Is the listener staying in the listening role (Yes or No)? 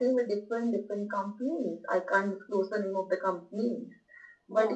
Yes